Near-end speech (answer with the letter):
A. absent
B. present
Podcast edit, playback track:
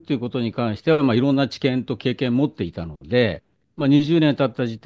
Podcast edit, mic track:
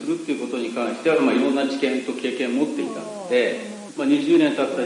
B